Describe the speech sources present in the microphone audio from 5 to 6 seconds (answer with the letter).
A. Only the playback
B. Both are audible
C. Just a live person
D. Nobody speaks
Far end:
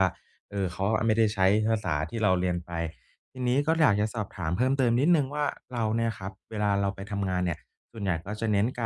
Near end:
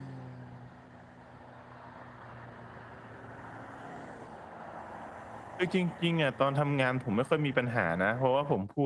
C